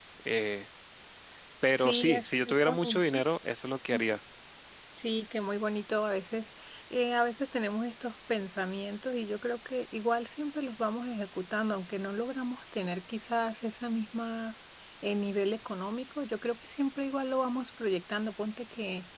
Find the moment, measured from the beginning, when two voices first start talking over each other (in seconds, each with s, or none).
1.8 s